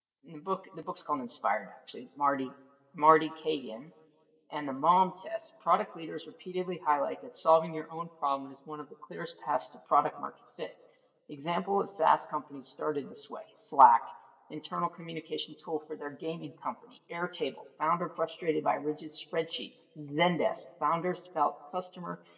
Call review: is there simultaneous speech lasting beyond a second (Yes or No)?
No